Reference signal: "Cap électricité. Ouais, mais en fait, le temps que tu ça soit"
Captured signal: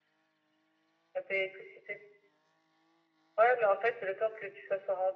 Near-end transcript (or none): none